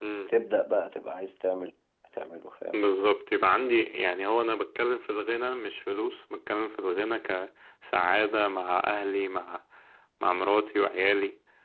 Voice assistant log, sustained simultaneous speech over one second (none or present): none